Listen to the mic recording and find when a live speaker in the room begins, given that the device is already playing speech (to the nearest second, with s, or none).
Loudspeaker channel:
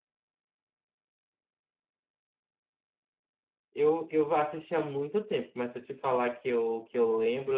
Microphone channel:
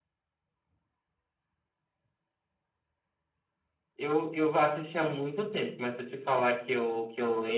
none